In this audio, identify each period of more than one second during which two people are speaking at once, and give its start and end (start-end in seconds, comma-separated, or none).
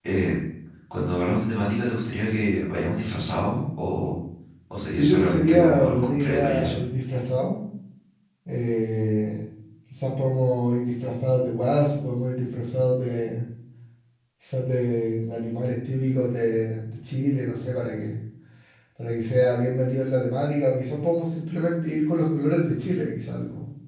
4.9-6.8